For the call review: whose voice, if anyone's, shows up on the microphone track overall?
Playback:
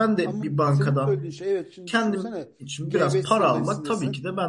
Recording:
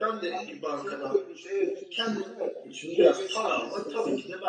echo only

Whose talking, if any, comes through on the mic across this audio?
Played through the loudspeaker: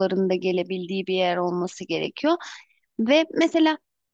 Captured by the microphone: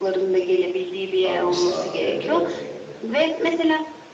both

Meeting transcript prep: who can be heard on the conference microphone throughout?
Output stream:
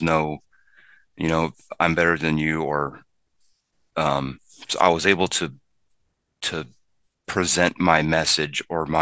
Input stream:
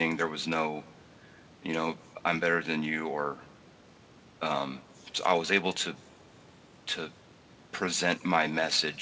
echo only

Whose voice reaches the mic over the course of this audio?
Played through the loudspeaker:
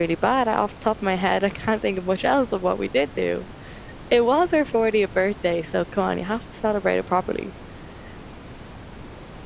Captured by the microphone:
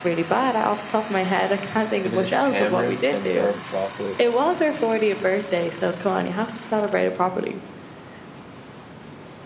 both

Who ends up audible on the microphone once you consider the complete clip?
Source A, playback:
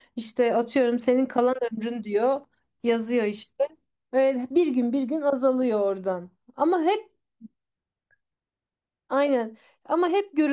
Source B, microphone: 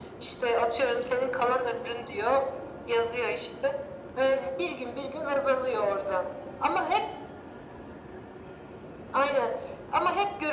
echo only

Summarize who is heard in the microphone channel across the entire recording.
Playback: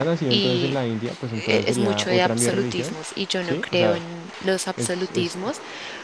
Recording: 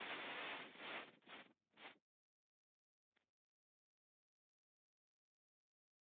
neither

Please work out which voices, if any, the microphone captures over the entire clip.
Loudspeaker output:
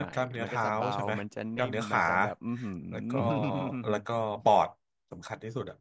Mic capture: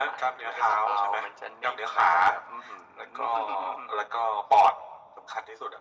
echo only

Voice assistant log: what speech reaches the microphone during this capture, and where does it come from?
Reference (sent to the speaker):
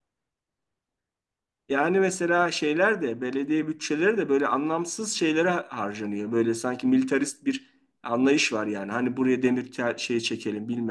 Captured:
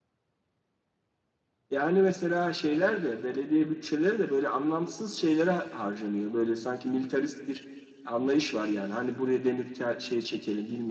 echo only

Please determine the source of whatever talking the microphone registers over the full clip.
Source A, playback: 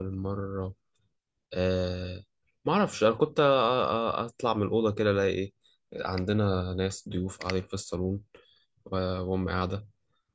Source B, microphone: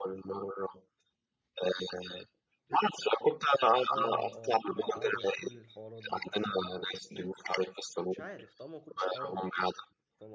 both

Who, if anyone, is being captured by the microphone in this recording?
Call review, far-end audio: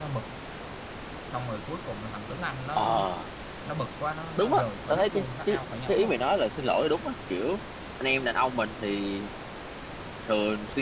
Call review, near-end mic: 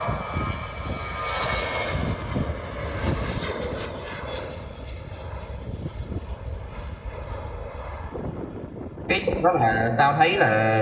user only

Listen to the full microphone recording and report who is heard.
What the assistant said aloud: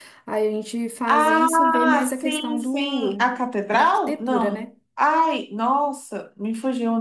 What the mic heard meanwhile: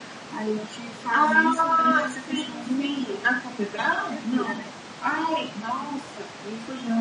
echo only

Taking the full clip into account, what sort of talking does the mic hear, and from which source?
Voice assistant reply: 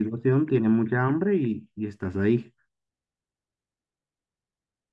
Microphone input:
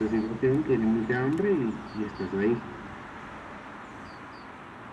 echo only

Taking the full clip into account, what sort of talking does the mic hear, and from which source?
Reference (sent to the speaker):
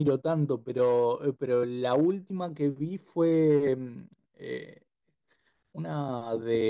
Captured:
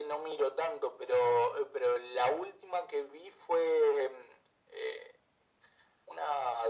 echo only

